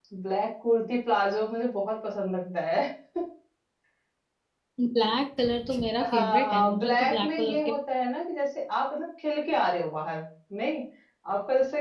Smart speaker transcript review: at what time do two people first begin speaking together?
6.0 s

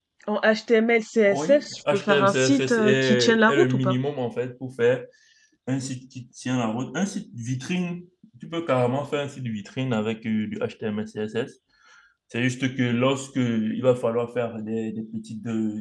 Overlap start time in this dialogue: 1.3 s

